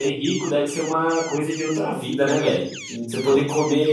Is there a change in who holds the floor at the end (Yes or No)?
No